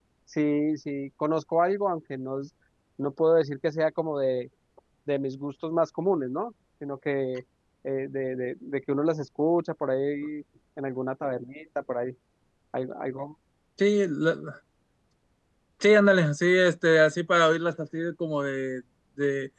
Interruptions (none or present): none